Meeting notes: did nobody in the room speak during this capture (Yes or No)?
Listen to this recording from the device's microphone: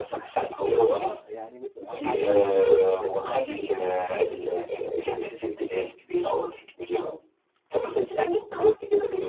No